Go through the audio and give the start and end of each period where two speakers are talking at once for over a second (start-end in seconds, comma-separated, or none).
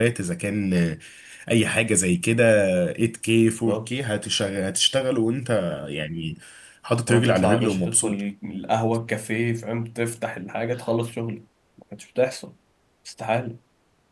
7.0-8.2